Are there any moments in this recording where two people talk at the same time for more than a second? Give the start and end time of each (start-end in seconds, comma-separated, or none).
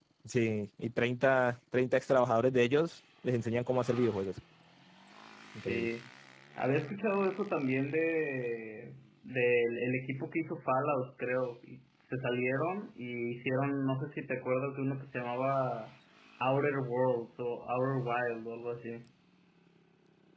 none